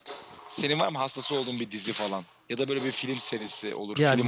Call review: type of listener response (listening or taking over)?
taking over